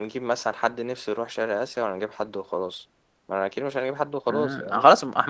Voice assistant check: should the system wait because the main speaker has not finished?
No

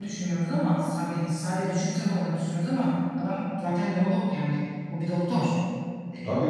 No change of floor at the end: No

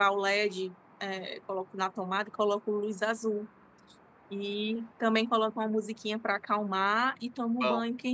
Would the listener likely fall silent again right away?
Yes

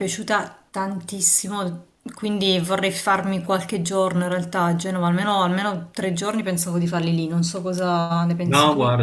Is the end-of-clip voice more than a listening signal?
Yes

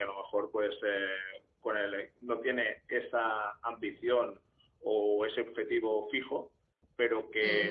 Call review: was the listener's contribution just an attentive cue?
Yes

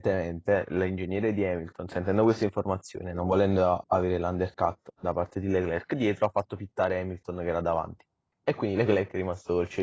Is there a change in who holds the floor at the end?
No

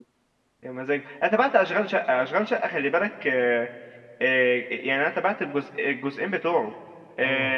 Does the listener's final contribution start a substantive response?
No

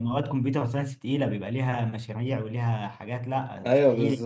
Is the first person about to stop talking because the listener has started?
Yes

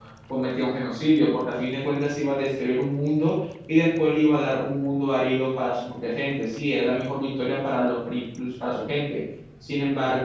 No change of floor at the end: Yes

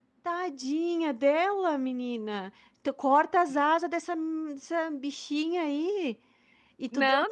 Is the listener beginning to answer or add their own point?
Yes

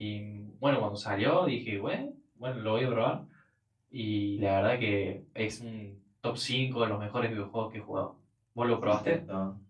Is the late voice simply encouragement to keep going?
No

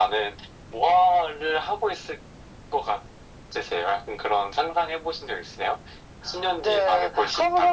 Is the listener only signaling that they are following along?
No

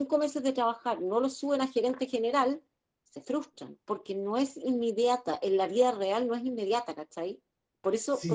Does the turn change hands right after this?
Yes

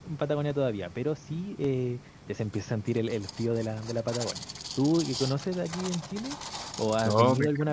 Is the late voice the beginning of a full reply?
Yes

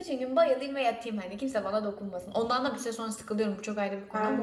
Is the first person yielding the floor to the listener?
Yes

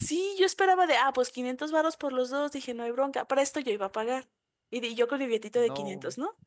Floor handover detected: No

